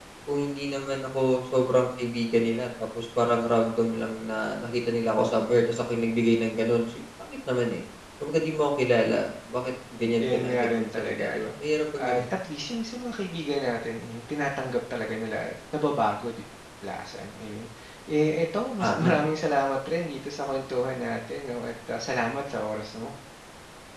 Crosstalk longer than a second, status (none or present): present